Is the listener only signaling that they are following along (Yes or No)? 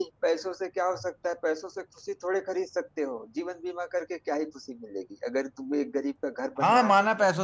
No